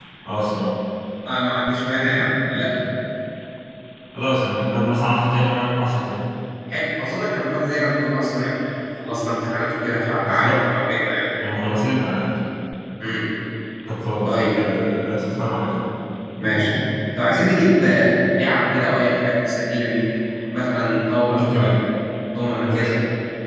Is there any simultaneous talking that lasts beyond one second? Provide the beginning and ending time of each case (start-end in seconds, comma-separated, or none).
none